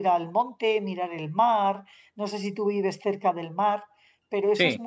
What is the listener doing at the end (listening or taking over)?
listening